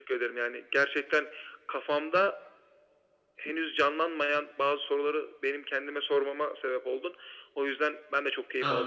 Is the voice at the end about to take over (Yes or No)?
Yes